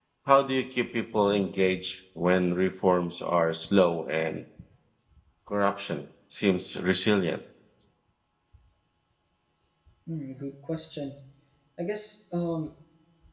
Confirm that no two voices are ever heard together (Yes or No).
Yes